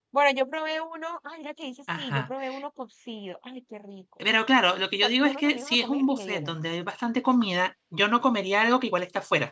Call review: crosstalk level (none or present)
present